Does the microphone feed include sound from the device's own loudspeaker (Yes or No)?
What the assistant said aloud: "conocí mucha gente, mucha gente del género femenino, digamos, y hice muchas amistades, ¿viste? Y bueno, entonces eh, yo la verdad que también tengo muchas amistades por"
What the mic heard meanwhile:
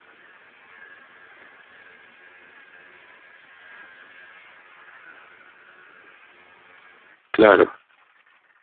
No